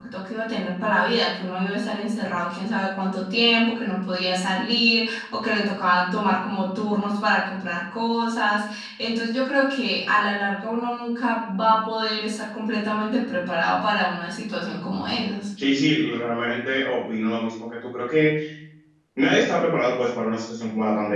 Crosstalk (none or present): none